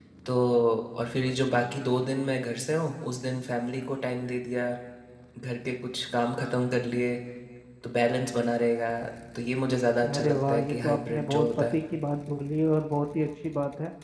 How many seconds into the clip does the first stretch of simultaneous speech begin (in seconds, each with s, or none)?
10.1 s